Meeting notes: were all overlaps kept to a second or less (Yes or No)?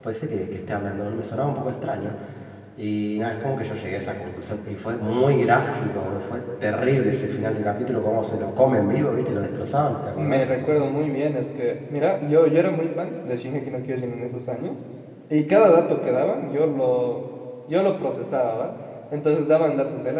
Yes